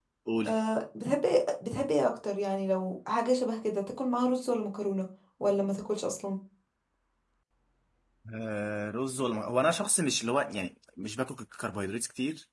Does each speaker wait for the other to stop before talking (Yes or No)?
Yes